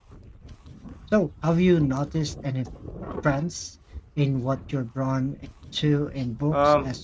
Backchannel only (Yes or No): No